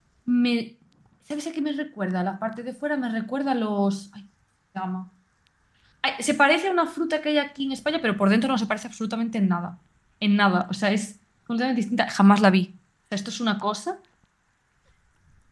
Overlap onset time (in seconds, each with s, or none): none